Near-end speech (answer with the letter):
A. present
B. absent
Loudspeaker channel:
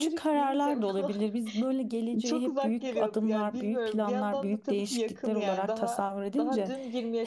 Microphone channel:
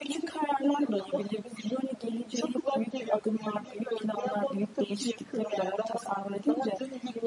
B